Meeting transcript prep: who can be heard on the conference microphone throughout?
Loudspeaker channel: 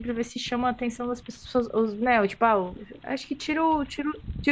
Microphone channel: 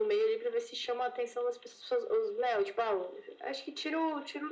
echo only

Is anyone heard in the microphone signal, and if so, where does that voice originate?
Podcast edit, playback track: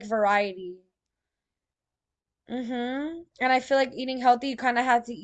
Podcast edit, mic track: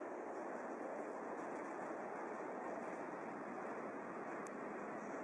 neither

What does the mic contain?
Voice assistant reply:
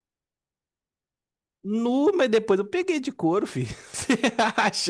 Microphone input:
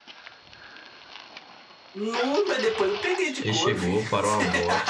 both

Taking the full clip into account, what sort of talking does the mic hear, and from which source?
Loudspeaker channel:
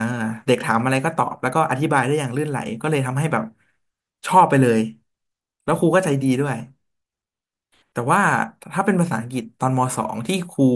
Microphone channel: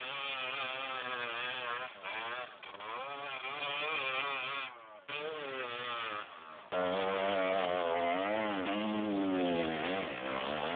neither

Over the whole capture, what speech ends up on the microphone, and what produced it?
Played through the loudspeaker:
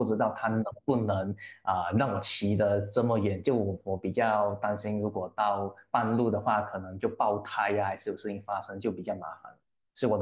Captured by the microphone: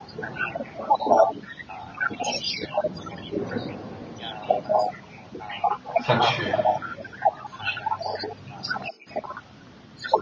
both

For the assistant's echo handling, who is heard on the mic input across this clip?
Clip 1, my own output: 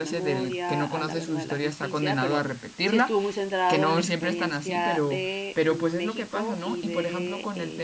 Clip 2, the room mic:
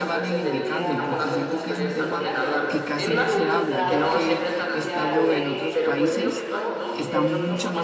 both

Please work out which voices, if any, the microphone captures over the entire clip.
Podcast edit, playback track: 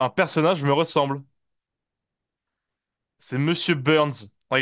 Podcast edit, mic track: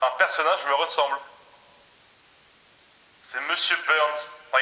echo only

